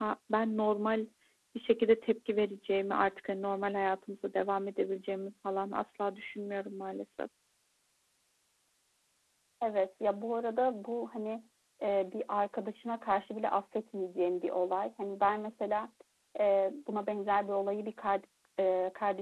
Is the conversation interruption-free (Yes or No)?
Yes